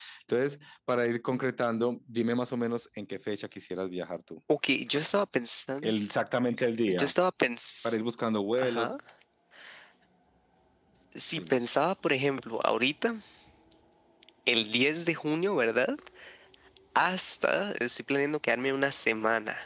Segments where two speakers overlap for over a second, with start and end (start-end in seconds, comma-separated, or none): none